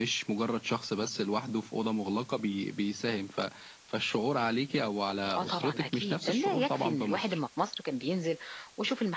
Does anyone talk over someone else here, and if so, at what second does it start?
5 s

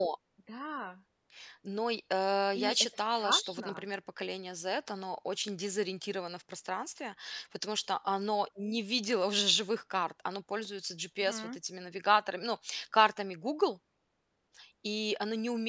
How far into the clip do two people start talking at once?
3 s

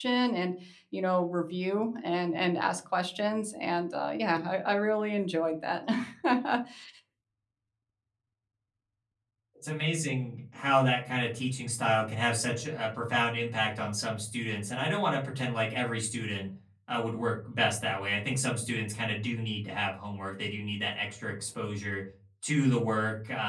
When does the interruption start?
none

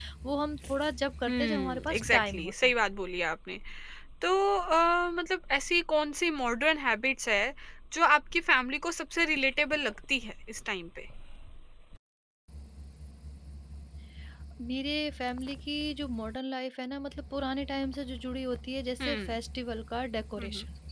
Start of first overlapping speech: 1 s

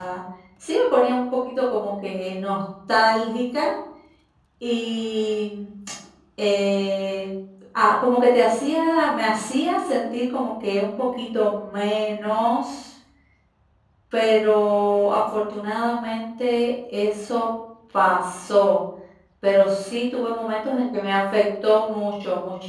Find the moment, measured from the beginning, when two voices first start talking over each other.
none

